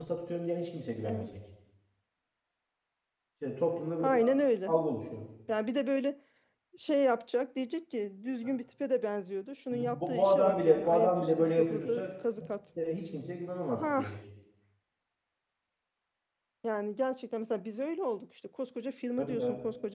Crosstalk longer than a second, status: present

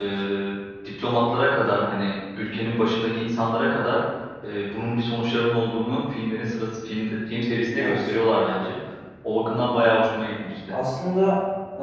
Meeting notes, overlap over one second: none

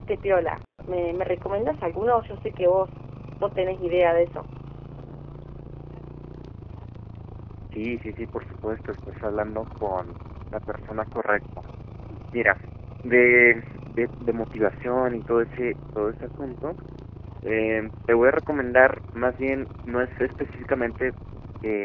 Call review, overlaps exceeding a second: none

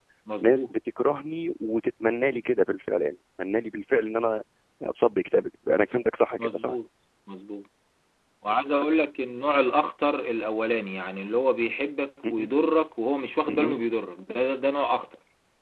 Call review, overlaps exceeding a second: none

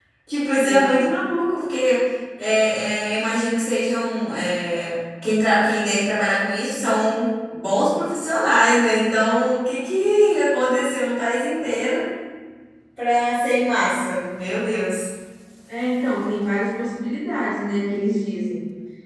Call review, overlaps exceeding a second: none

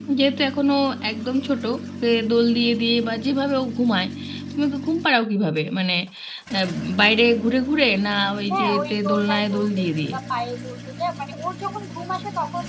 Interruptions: present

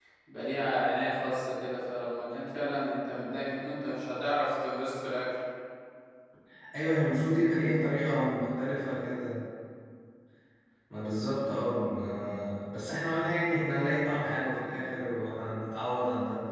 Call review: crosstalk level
none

